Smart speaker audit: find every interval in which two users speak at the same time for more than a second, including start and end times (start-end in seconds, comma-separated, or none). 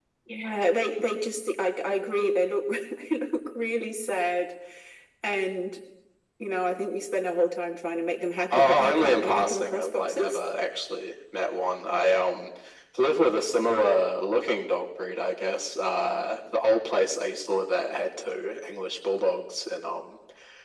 8.5-10.4